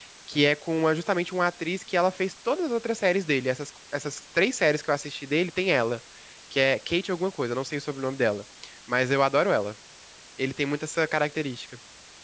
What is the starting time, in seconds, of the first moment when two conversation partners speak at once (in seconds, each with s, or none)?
none